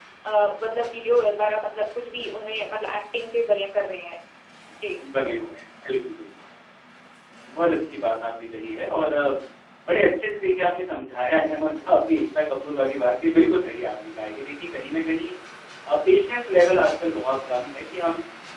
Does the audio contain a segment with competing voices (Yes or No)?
No